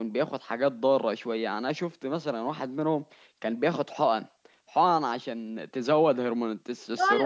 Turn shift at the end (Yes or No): Yes